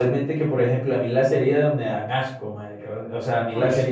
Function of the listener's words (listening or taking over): listening